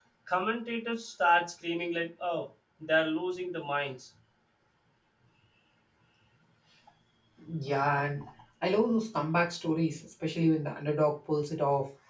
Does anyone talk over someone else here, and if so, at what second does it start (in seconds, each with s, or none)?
none